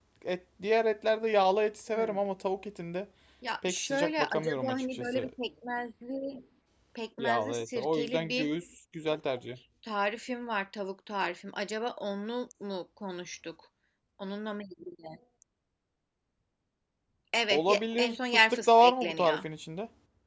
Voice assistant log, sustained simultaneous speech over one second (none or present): present